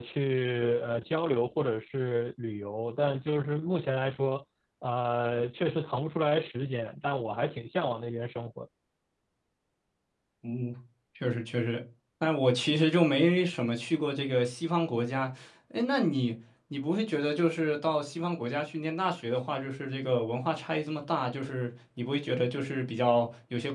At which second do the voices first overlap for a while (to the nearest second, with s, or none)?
none